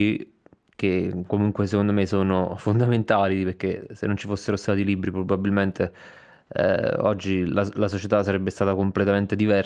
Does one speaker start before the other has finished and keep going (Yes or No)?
No